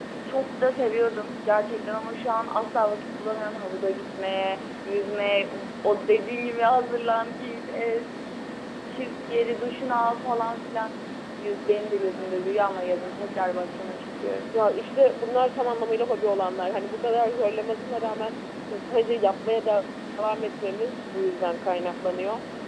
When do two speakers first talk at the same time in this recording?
none

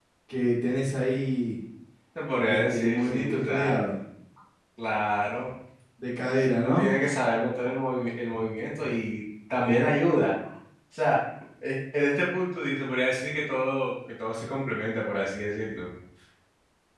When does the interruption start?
2.5 s

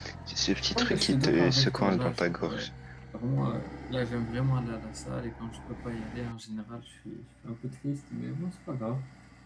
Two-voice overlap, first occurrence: 0.8 s

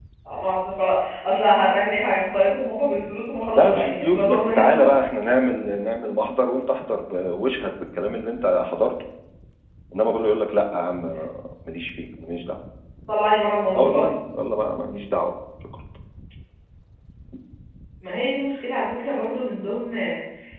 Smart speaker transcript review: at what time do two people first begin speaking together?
3.6 s

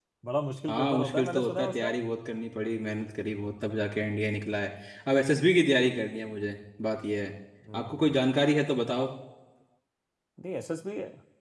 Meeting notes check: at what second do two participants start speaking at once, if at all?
0.7 s

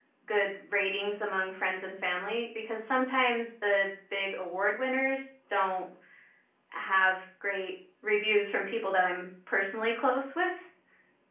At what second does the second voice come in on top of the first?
none

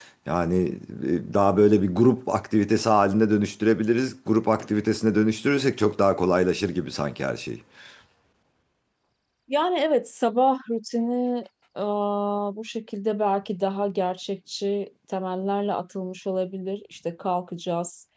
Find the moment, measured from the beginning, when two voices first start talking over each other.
none

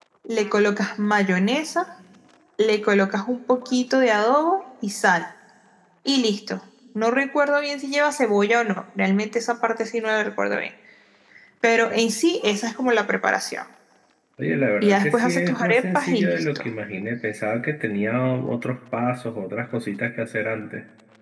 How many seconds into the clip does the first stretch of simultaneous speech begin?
14.8 s

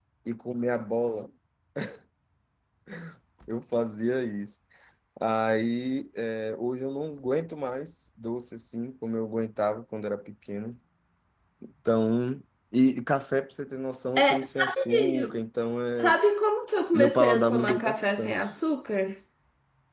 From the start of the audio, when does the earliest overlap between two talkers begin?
14.2 s

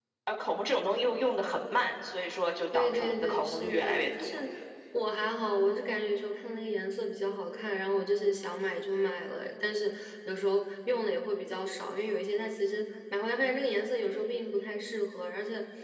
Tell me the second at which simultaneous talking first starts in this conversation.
2.7 s

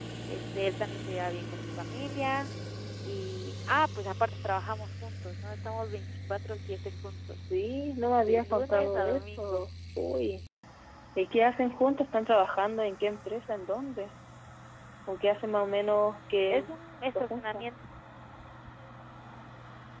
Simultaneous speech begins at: 8.3 s

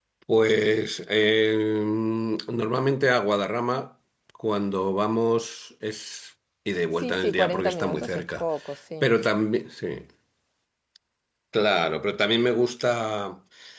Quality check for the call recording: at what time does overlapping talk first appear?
7.0 s

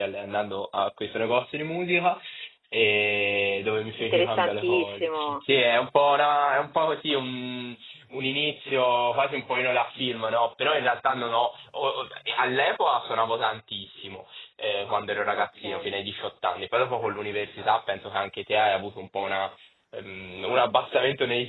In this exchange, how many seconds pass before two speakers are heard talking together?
4.0 s

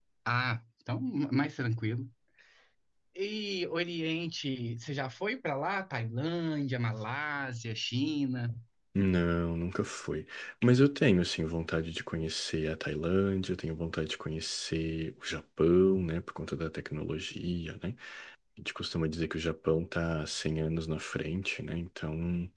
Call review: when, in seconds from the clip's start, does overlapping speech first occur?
none

